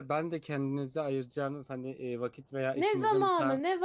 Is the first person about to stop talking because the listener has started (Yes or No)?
Yes